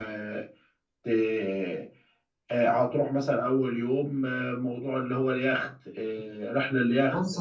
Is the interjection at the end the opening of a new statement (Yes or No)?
Yes